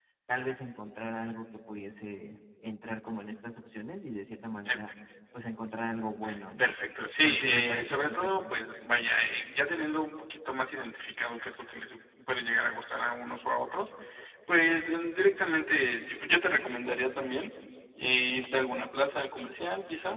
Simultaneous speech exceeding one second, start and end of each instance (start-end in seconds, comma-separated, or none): 7.2-8.5